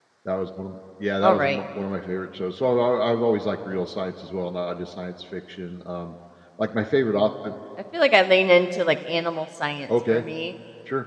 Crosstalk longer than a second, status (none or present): none